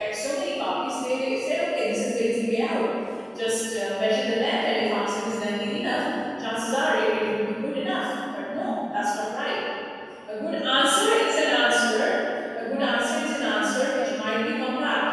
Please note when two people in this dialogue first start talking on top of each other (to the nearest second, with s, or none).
13 s